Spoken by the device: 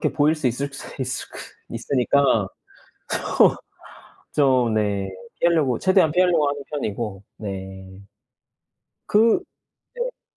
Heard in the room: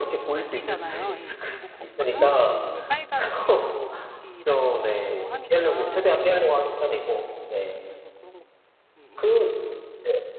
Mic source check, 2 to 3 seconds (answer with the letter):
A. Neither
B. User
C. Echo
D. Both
D